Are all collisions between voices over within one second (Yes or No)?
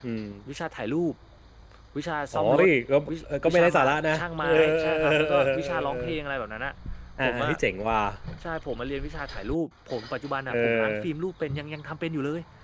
No